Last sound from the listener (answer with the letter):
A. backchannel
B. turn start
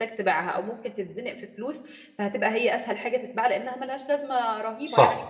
B